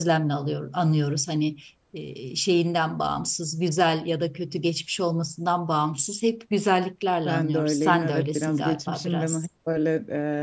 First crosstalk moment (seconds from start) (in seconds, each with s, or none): 7.2 s